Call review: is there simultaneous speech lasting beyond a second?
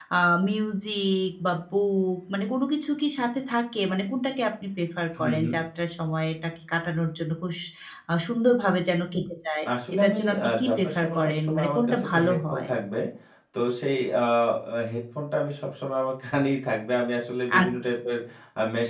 Yes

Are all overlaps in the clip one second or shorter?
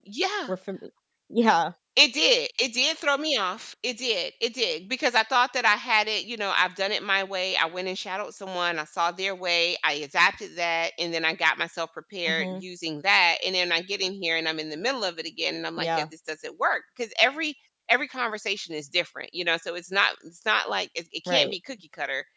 Yes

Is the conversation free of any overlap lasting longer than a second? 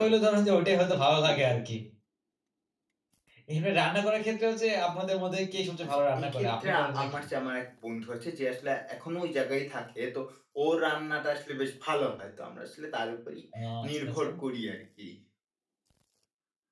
No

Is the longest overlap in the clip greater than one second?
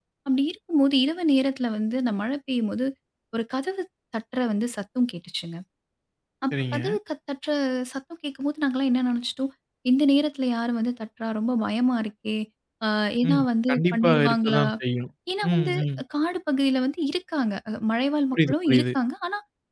Yes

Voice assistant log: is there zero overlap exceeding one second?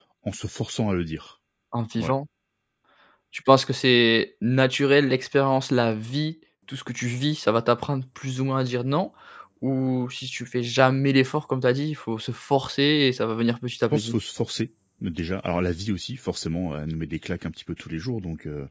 Yes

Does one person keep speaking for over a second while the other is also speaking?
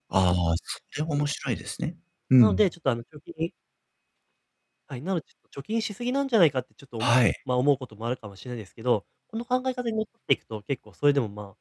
No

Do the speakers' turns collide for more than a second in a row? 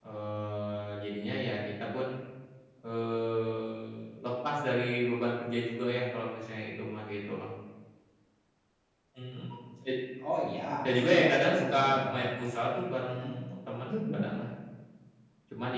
Yes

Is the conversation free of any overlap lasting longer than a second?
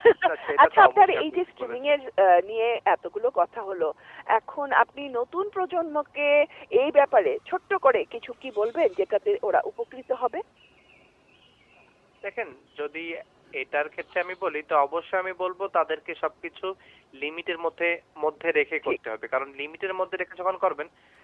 No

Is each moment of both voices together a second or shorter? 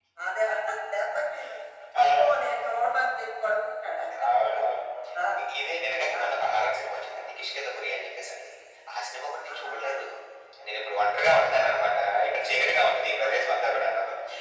Yes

